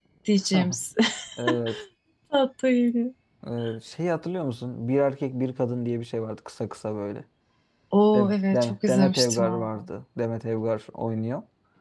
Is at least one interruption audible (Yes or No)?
Yes